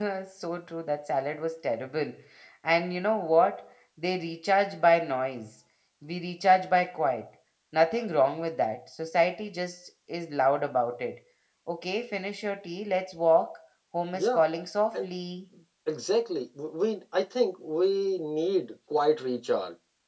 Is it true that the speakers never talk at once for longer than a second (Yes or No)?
Yes